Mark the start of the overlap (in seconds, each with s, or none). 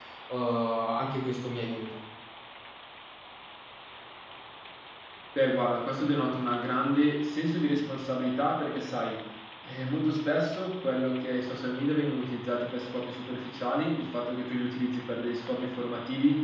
none